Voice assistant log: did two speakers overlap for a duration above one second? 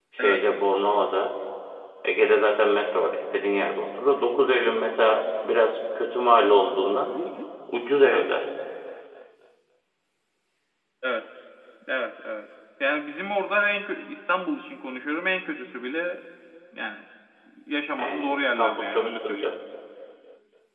Yes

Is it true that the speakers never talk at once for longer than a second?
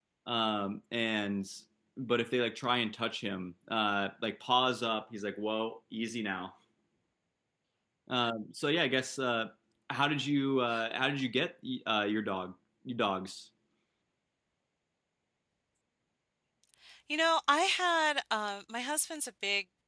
Yes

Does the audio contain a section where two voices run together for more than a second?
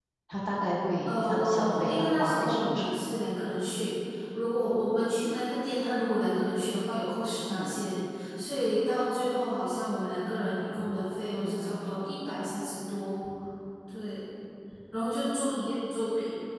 Yes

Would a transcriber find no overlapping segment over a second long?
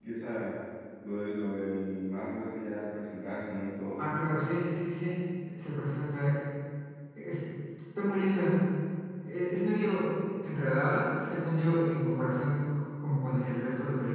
Yes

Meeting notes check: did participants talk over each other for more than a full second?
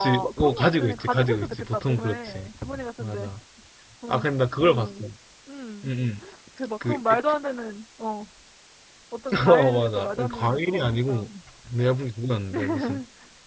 Yes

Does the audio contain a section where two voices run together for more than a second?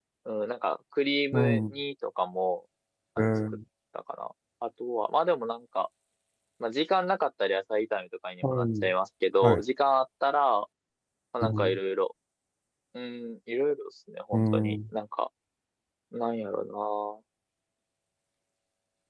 No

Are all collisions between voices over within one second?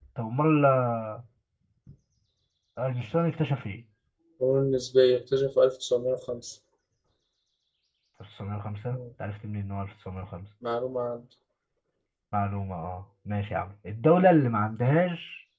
Yes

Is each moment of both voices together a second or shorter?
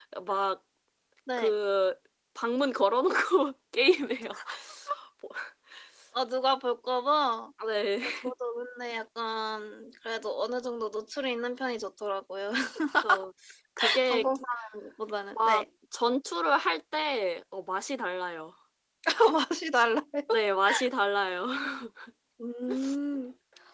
Yes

